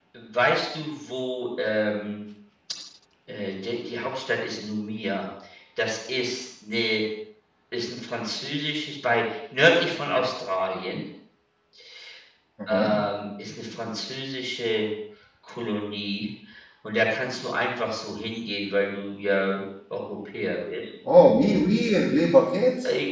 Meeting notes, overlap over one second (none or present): none